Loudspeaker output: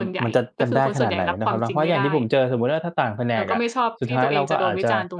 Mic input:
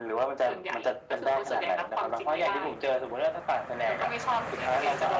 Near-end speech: none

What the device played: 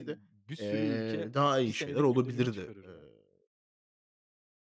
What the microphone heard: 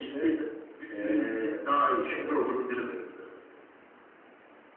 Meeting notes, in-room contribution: none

